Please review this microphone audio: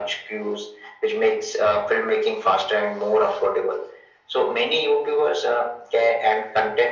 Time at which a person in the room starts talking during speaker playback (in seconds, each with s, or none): none